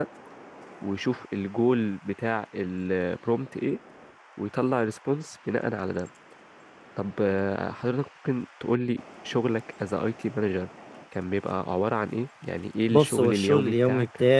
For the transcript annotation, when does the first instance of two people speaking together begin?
13 s

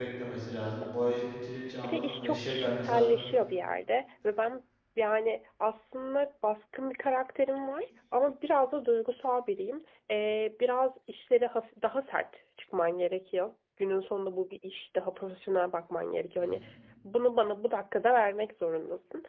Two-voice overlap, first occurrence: 2 s

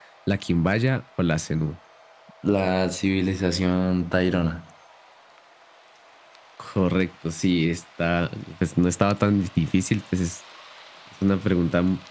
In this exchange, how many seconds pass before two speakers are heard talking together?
none

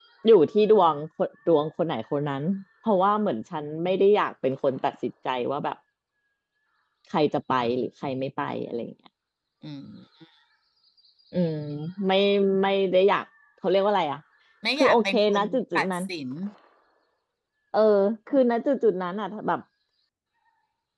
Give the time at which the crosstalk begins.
15 s

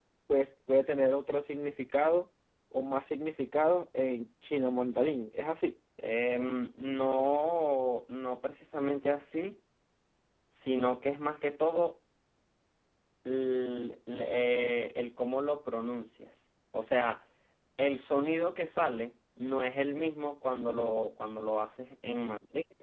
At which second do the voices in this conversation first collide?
none

